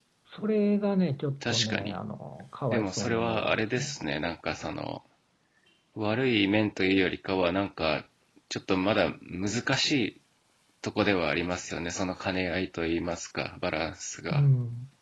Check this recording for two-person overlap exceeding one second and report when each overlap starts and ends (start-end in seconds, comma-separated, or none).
2.7-3.9